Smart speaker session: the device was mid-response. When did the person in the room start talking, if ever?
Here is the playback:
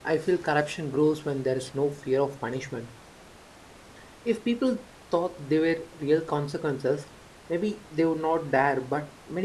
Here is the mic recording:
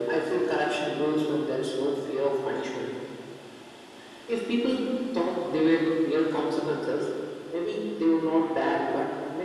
none

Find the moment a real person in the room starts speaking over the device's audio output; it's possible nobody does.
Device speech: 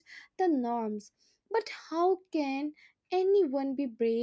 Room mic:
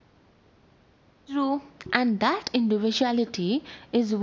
1.3 s

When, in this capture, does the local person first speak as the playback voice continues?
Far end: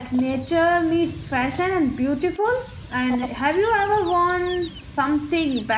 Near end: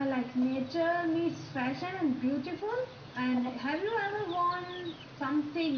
none

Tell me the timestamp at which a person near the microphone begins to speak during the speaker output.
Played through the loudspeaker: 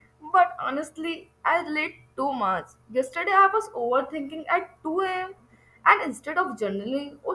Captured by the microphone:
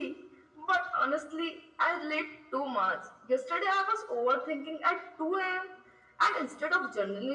none

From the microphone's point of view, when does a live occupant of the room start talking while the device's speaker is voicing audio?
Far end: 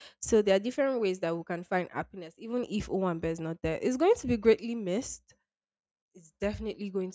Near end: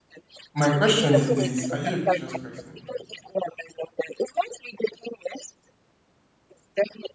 0.5 s

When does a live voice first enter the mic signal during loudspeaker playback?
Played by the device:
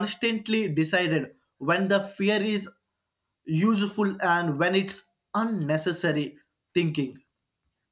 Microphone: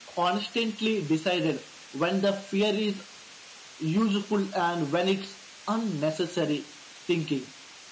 none

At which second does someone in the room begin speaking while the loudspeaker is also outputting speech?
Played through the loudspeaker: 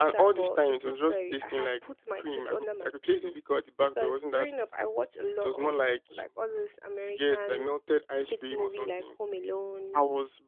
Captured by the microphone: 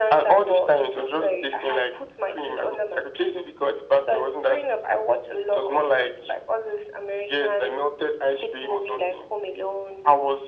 none

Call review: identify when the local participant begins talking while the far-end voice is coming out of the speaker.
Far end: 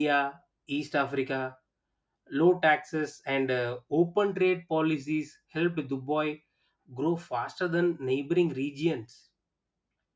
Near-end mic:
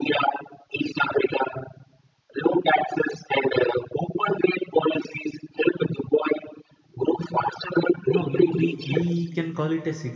8.1 s

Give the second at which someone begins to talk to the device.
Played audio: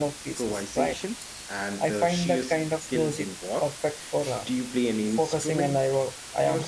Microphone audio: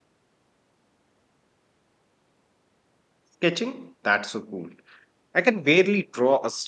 3.2 s

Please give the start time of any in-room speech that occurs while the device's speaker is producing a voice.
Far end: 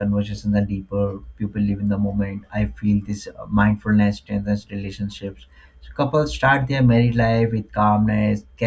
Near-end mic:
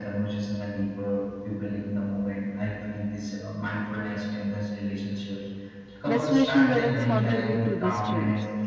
6.0 s

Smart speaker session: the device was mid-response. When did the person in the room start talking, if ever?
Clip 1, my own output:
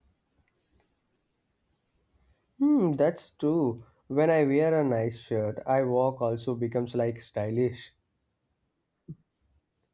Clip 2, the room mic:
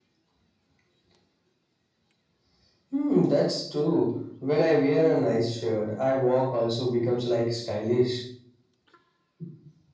none

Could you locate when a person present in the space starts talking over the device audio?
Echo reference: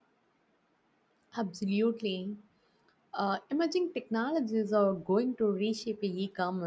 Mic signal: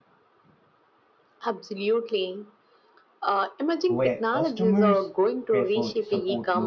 3.9 s

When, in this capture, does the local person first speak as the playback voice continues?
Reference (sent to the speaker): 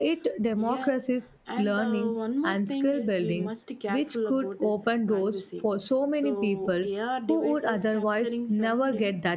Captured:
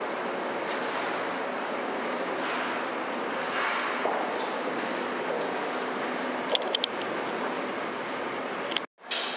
none

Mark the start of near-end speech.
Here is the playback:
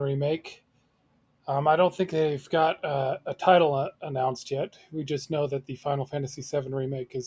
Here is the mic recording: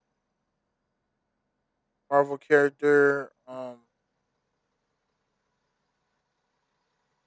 2.1 s

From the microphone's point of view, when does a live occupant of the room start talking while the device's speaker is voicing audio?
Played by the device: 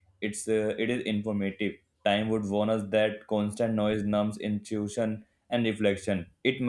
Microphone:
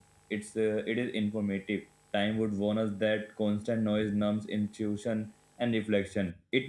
none

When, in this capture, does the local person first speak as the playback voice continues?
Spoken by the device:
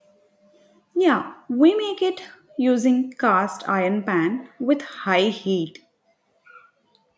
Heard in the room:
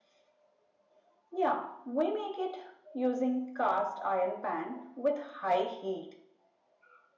none

